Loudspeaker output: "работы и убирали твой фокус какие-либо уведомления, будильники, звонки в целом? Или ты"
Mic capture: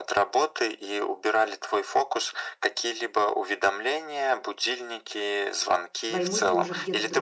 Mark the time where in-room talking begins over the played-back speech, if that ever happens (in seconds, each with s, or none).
6.1 s